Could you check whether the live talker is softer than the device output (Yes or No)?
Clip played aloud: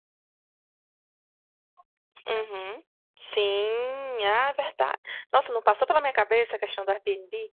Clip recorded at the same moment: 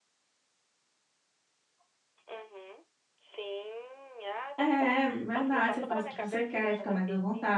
No